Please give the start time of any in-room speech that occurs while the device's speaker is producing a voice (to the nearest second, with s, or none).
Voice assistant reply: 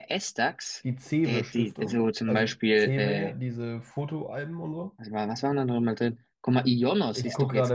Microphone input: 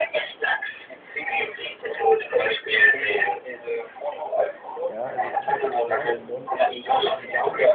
5 s